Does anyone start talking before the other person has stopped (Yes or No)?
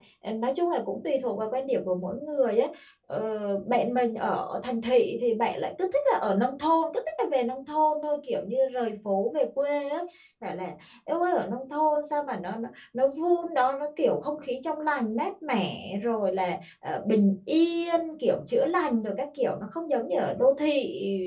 No